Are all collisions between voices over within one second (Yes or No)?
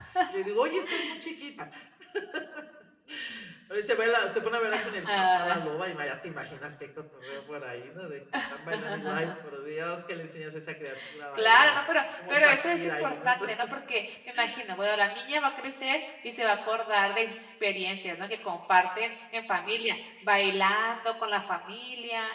No